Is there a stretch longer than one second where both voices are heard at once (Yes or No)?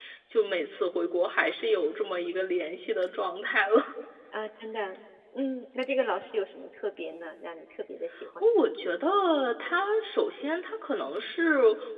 No